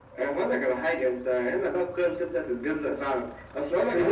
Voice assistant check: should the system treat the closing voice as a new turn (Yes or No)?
Yes